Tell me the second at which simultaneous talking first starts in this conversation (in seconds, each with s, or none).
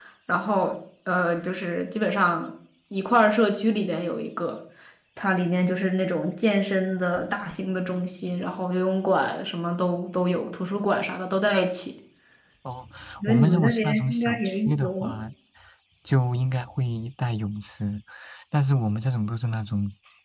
13.2 s